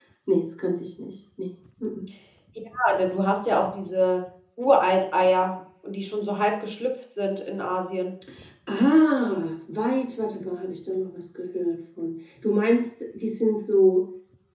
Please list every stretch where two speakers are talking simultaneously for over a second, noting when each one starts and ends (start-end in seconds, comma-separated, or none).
none